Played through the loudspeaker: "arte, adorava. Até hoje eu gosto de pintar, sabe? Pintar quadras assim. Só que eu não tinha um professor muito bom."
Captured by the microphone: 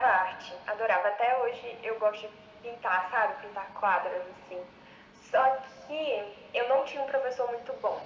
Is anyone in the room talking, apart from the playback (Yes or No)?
No